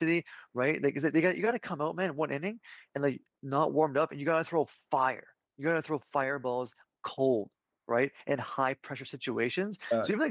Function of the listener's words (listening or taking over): listening